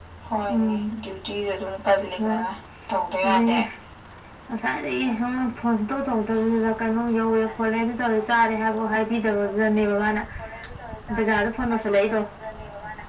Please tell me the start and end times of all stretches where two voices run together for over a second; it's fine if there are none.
none

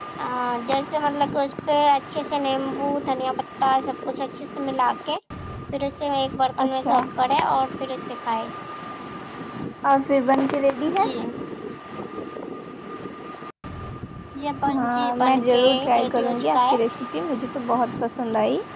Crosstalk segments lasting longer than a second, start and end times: 14.7-16.8

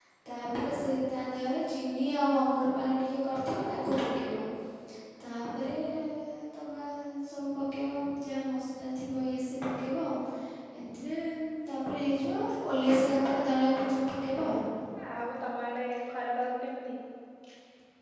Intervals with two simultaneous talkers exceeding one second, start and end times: none

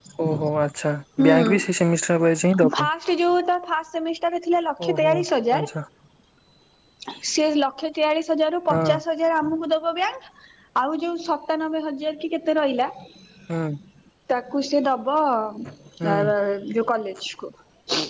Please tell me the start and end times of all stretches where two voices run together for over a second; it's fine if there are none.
none

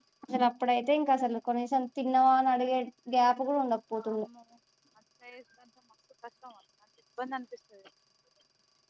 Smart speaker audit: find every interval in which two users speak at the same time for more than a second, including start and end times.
none

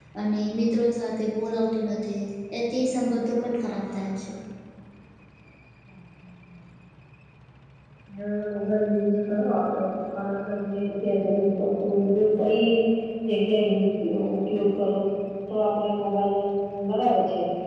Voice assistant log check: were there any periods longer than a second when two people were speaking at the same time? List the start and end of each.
none

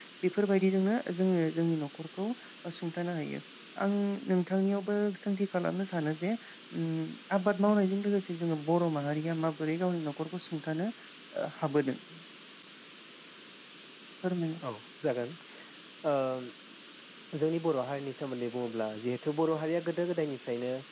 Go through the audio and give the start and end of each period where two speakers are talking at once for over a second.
none

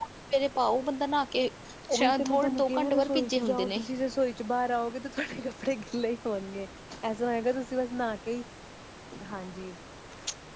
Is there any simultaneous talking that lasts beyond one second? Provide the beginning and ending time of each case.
1.9-3.8

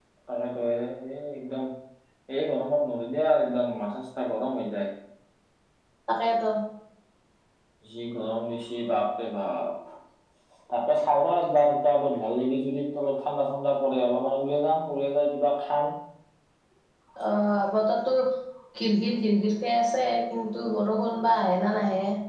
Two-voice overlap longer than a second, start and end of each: none

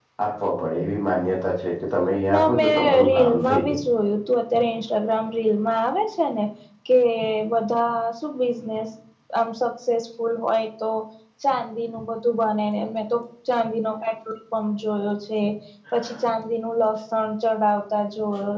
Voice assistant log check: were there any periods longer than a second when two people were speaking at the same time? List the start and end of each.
2.3-3.8

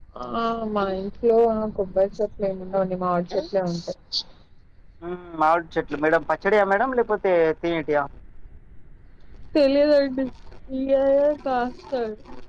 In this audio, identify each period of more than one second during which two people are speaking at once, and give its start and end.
none

